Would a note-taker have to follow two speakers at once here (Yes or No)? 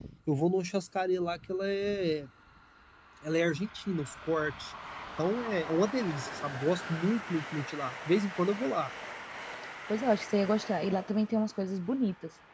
No